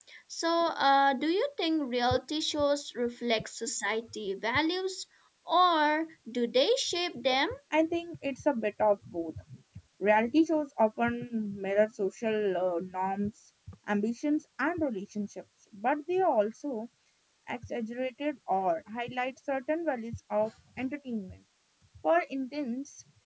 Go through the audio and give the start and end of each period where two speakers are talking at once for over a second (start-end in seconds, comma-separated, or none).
none